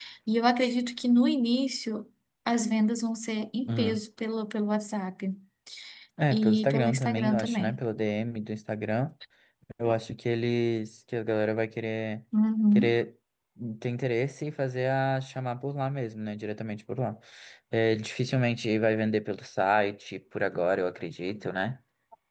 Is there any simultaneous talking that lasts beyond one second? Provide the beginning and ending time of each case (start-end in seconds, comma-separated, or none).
6.3-7.8